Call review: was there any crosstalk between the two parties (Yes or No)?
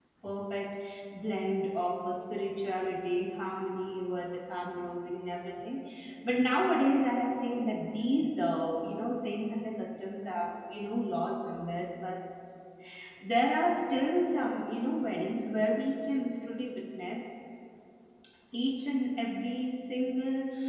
No